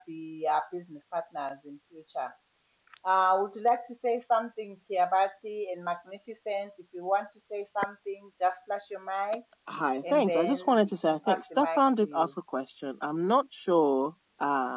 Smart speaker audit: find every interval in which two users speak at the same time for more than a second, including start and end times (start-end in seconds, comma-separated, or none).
10.1-12.3